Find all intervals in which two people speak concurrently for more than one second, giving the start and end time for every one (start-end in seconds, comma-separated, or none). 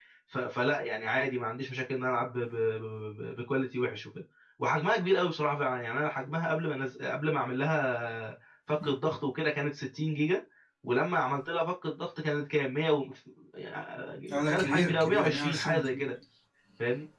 14.4-16.1